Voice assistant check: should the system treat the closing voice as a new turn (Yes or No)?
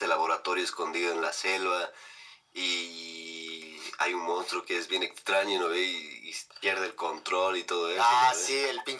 Yes